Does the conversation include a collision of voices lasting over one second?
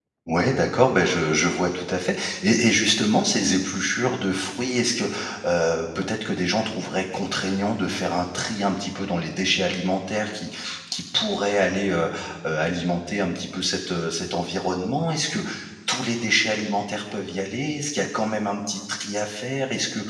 No

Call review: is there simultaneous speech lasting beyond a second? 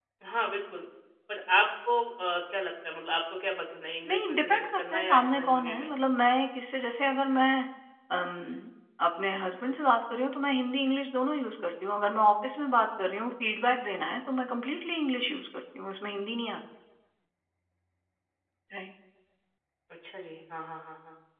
Yes, from 4.0 s

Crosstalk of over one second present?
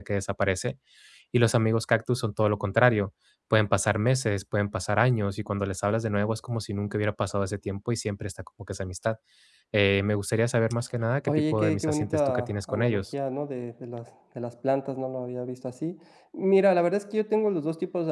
Yes, from 11.3 s

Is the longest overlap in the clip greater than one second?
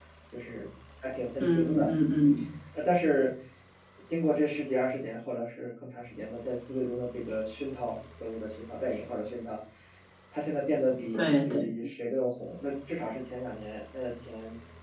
No

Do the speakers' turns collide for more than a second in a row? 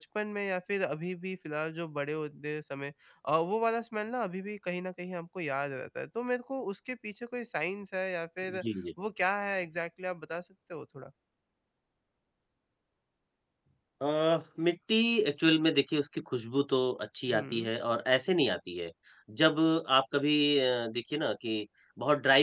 No

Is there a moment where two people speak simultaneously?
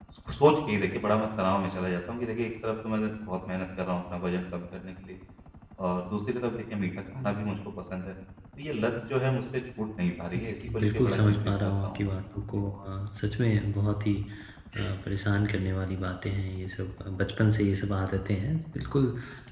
Yes, from 10.3 s

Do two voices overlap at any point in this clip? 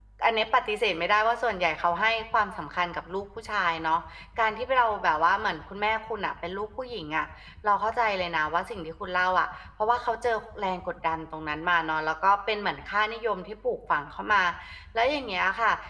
No

